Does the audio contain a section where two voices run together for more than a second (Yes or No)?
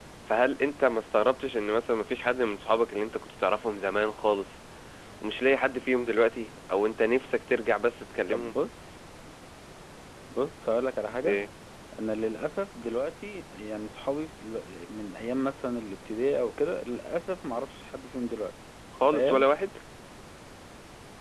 No